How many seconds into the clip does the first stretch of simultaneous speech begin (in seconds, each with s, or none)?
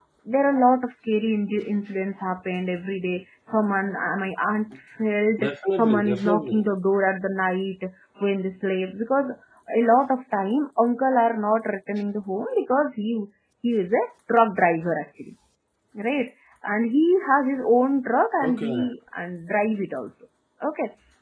5.4 s